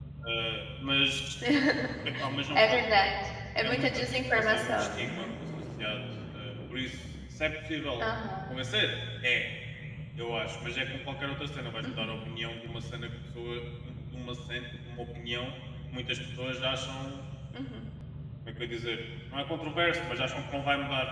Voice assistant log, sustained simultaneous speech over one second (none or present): present